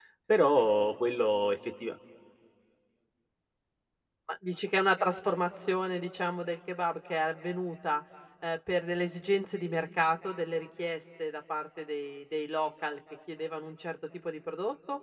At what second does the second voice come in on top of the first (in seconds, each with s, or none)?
none